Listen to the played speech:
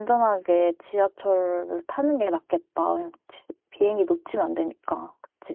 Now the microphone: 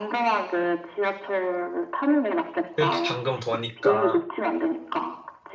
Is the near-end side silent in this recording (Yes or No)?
No